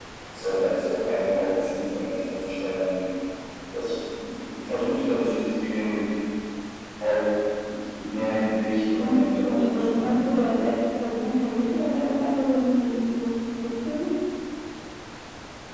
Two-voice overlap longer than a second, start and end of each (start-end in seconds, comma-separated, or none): 9.0-10.5